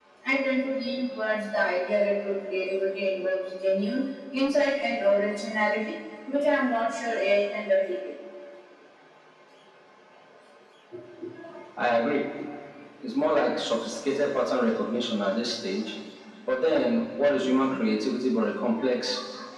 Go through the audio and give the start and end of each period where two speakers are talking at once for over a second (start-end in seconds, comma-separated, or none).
none